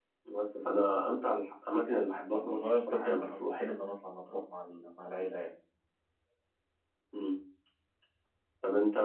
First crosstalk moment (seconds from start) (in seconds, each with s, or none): 2.3 s